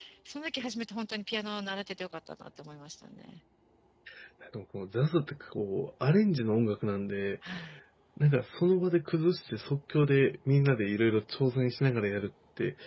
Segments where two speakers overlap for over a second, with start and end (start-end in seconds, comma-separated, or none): none